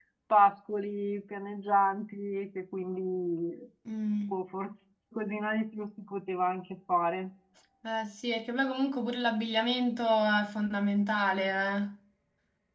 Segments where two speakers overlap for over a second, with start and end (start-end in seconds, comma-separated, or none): none